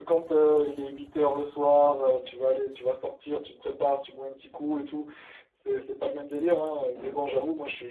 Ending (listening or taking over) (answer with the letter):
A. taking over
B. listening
B